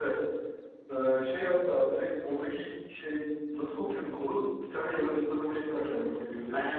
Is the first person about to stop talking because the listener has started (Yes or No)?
Yes